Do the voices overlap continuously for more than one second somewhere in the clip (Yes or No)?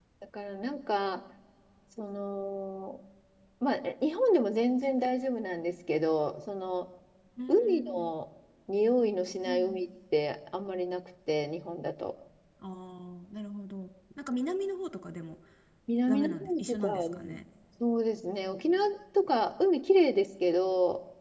Yes